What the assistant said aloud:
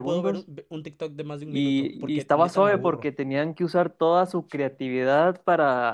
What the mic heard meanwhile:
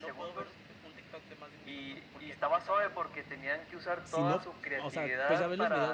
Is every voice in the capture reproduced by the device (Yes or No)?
No